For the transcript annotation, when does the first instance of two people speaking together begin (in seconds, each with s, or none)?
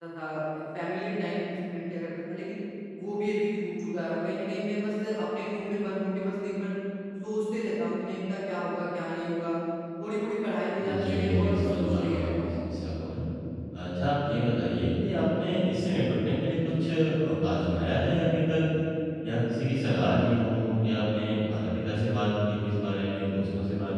11.1 s